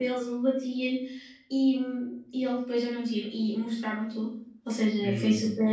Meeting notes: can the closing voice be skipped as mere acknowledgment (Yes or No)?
Yes